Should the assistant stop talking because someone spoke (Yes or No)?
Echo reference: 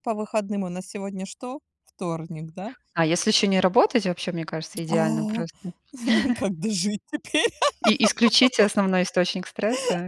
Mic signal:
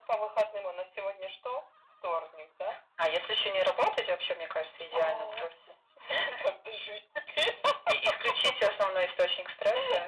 No